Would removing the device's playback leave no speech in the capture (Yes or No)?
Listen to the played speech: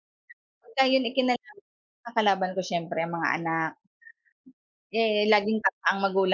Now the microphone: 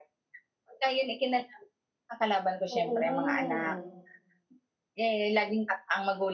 No